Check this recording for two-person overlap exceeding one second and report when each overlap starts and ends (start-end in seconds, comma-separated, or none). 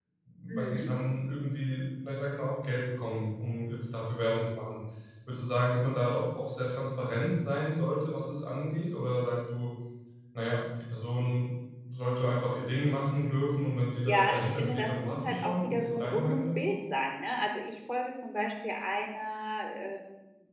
14.0-16.7